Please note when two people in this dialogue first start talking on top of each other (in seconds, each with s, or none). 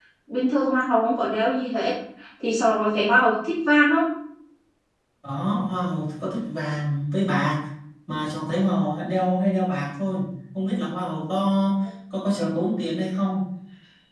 none